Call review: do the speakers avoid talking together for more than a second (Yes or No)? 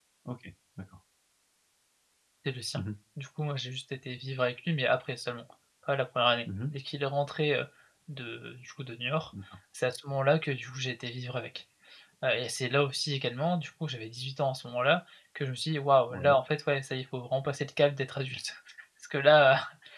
Yes